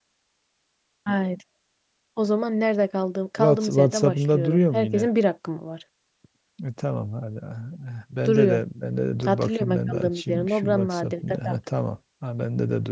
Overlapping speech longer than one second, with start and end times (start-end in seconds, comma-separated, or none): 3.4-5.1, 9.2-11.4